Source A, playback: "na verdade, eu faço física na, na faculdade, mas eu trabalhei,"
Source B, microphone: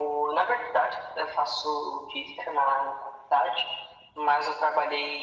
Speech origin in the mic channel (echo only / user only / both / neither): echo only